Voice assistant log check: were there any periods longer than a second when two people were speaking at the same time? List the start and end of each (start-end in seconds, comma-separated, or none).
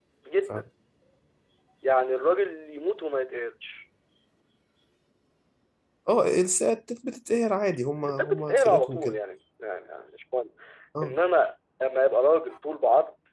8.0-9.2